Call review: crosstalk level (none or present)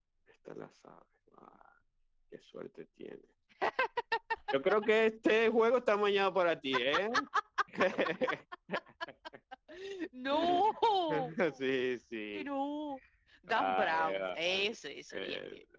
present